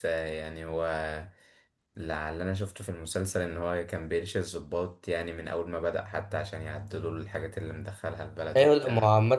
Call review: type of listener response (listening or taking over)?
taking over